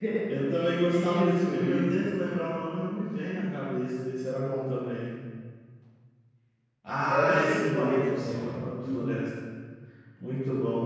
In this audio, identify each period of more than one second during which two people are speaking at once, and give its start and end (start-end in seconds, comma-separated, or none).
0.9-2.1, 7.1-9.1